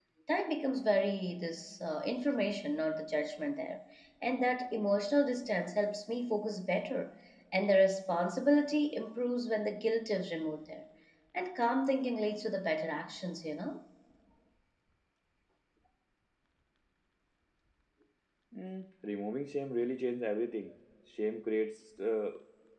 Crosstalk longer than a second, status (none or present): none